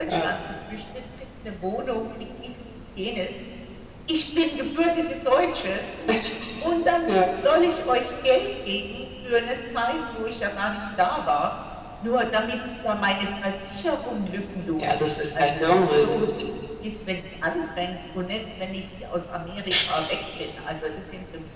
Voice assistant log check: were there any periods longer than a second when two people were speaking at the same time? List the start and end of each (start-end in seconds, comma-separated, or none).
14.8-16.3